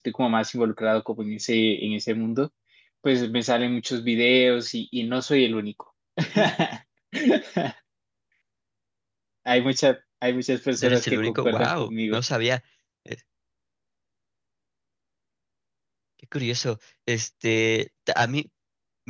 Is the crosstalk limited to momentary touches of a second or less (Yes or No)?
No